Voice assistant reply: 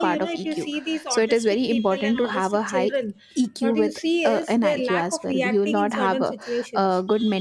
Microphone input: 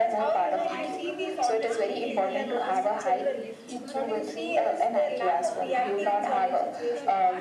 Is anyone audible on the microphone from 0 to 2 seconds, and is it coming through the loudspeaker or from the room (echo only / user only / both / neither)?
both